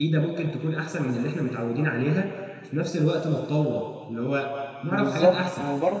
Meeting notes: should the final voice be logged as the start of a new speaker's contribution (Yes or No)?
Yes